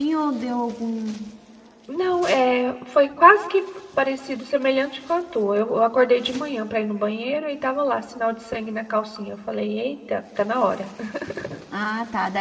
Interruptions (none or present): none